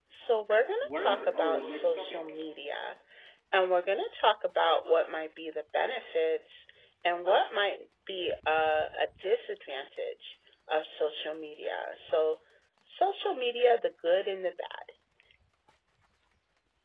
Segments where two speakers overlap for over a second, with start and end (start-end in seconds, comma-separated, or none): 0.8-2.2